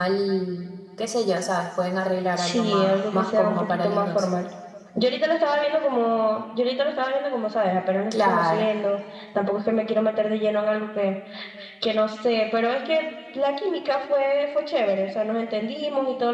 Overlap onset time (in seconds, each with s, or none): 2.4 s